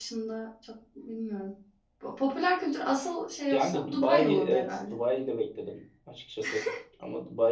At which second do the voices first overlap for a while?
3.5 s

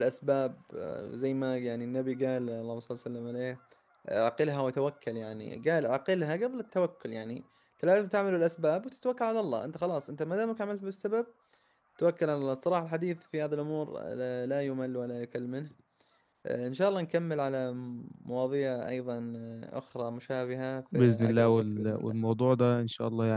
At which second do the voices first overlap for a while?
20.9 s

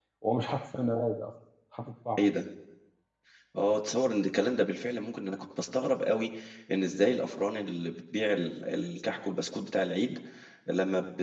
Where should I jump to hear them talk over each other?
none

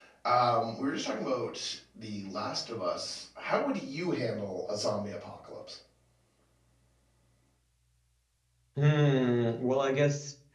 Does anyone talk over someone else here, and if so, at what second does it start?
none

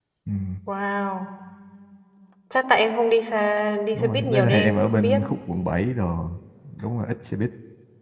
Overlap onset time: 3.9 s

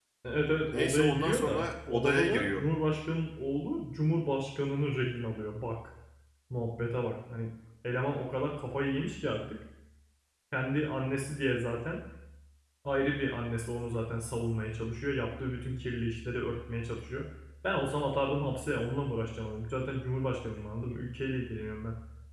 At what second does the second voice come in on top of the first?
0.7 s

